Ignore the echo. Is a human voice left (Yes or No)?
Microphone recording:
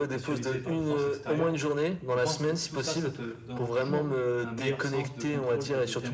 Yes